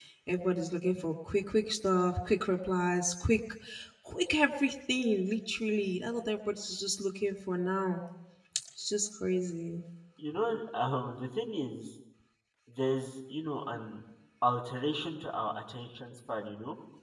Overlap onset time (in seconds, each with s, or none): none